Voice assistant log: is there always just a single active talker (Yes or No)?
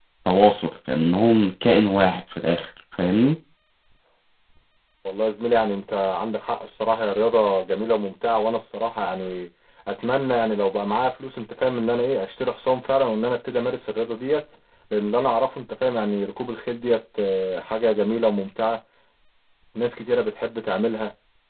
Yes